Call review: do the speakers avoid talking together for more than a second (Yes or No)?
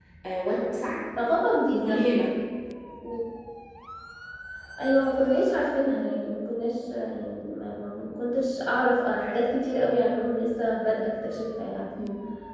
Yes